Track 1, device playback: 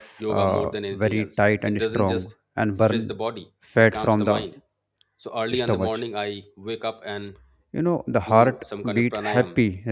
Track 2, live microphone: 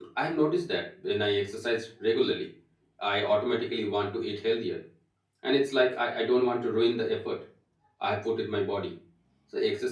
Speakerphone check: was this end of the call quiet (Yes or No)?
No